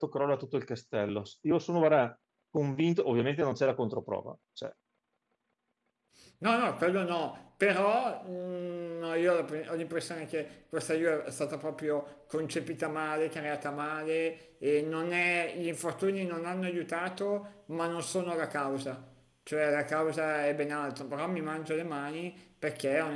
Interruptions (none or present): none